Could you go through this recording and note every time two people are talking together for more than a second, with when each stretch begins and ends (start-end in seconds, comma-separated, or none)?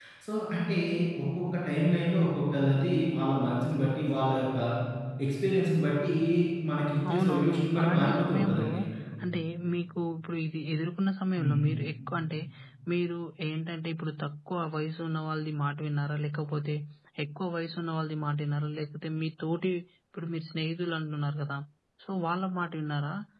7.1-8.7